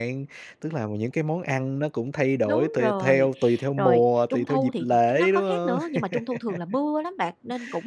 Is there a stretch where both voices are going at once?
Yes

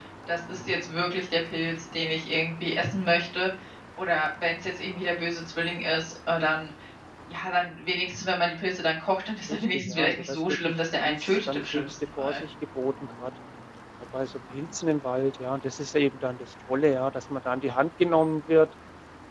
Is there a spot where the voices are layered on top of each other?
Yes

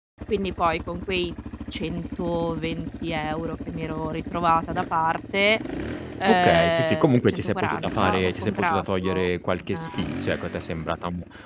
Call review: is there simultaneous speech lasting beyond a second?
Yes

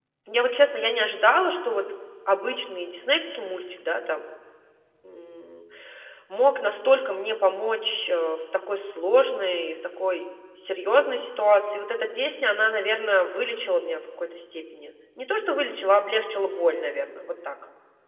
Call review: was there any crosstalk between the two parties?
No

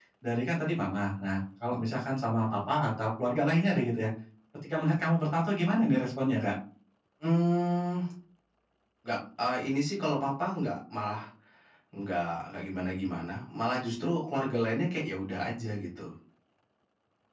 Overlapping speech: No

